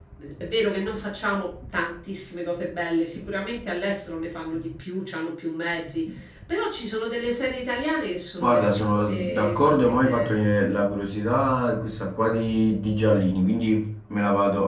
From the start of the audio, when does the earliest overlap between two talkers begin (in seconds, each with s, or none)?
8.4 s